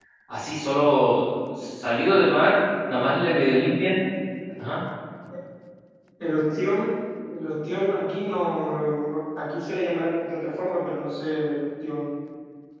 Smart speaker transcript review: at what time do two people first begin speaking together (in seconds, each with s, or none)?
none